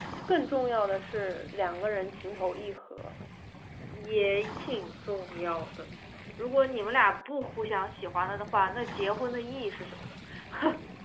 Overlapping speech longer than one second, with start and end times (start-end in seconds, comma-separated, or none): none